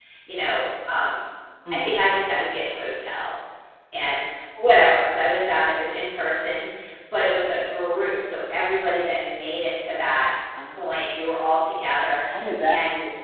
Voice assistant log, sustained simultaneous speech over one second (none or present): none